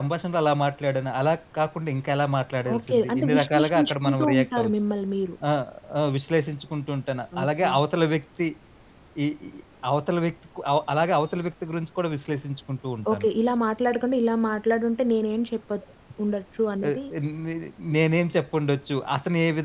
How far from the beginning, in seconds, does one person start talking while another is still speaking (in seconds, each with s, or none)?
2.7 s